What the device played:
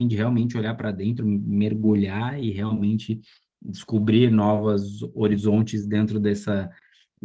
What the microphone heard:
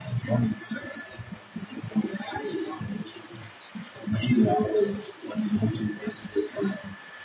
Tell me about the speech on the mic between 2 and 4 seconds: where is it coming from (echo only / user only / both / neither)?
echo only